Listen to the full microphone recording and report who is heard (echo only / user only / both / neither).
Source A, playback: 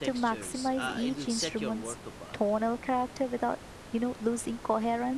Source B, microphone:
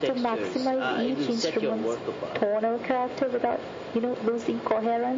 echo only